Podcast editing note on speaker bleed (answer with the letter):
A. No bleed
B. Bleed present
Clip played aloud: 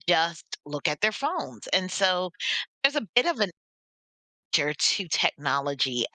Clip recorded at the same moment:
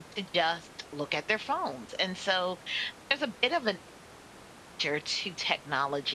B